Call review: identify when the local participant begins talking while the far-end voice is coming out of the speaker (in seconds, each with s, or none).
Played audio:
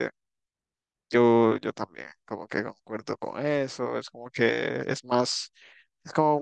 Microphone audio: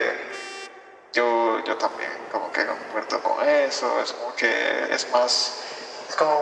none